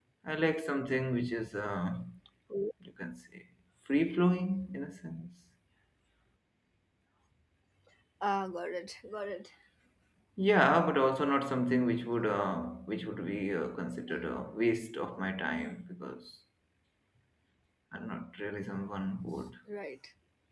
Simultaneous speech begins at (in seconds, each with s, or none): none